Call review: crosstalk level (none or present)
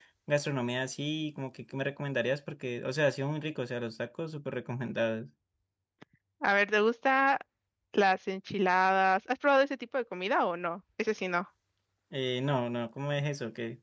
none